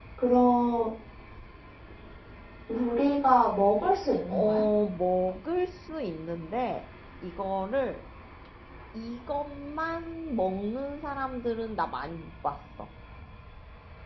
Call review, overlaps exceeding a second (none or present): none